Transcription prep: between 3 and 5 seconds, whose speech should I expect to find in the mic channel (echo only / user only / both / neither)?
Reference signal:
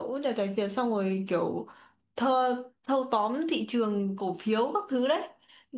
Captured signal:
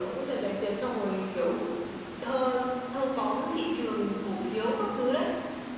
echo only